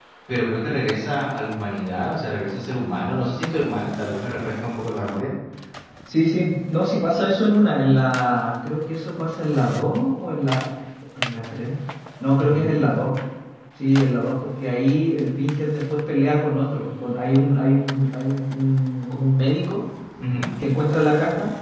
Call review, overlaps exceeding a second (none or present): none